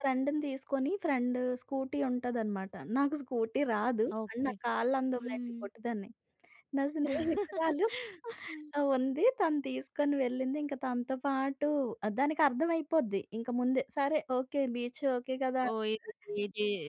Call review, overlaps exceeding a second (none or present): none